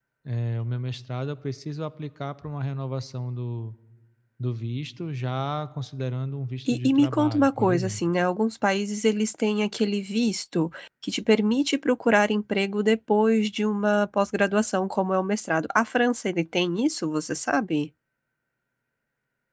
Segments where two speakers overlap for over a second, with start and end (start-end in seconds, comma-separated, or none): 6.7-8.0